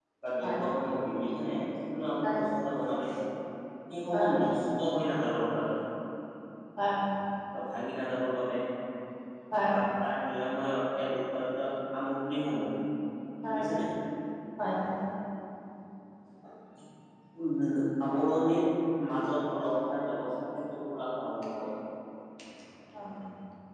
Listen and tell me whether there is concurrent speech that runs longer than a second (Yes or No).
No